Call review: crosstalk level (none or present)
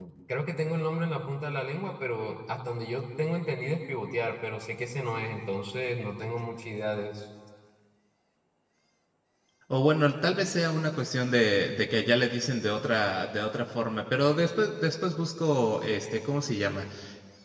none